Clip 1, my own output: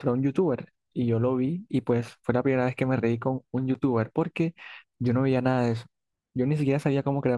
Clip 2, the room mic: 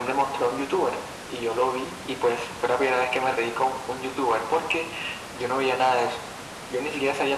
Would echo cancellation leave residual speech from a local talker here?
No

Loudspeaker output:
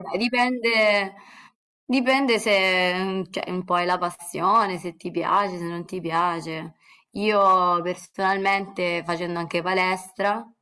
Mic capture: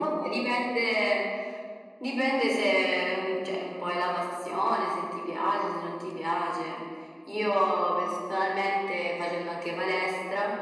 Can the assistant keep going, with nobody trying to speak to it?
Yes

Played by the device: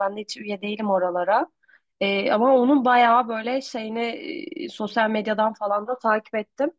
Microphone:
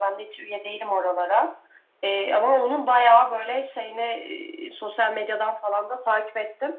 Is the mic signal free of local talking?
Yes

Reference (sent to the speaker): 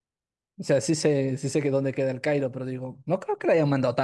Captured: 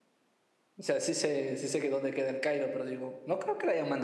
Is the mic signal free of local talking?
Yes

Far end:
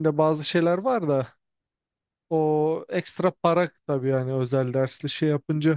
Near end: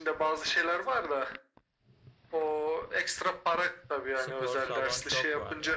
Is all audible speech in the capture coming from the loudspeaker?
No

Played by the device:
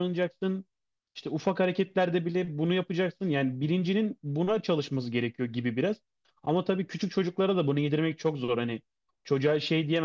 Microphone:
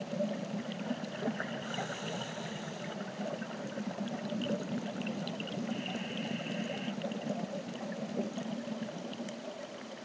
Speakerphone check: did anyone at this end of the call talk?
No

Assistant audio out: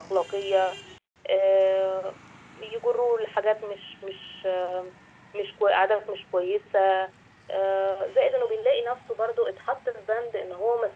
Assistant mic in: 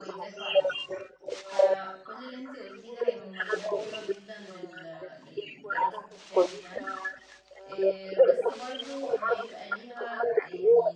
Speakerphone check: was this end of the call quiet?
No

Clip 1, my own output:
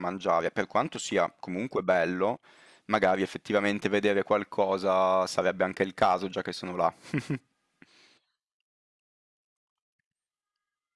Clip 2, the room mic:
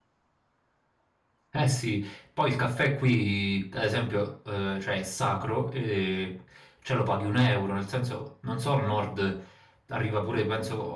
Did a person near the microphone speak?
Yes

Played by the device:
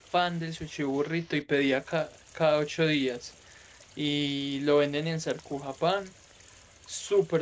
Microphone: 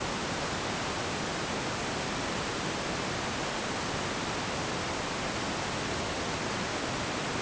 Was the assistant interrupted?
No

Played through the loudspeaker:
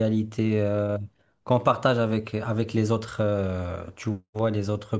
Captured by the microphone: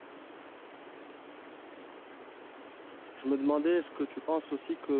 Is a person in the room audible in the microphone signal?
Yes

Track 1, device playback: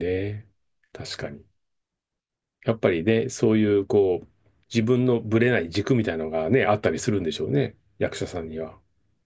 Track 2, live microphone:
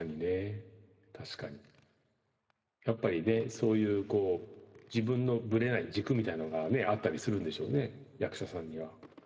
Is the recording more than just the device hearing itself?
No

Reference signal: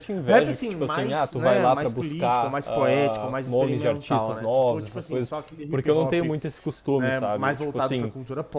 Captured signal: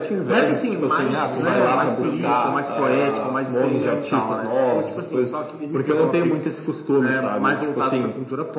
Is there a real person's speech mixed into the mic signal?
Yes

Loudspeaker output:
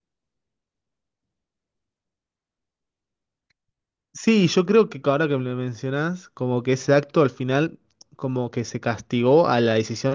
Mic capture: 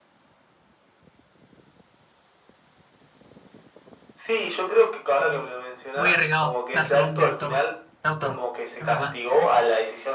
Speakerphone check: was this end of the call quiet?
No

